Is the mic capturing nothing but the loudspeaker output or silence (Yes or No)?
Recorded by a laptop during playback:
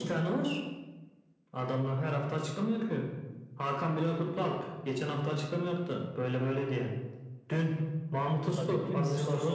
No